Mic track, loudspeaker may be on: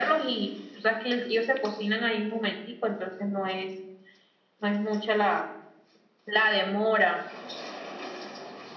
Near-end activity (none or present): none